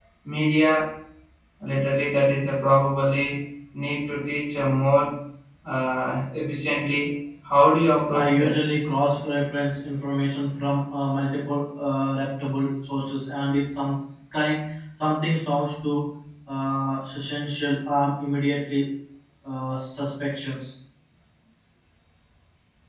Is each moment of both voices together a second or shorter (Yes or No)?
Yes